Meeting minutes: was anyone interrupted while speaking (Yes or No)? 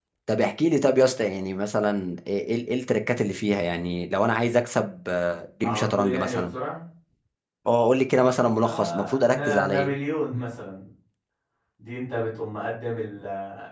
Yes